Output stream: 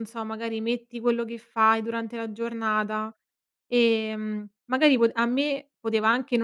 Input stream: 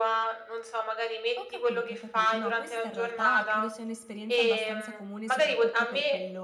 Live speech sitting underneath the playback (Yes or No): Yes